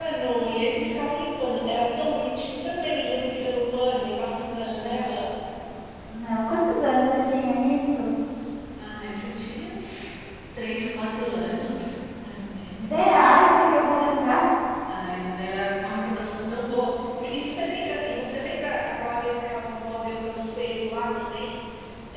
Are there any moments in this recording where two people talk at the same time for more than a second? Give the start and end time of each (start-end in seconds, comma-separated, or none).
none